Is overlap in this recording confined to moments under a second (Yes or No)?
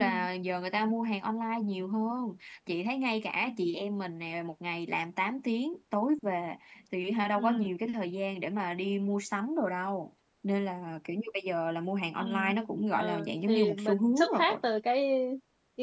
No